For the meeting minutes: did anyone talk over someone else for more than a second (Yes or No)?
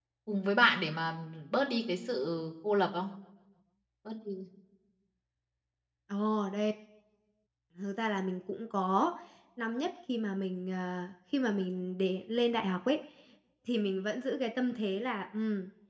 No